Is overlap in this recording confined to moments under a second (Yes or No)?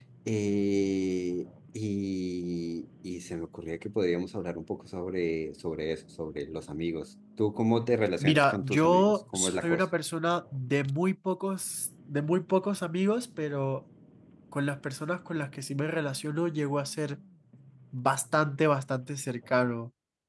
No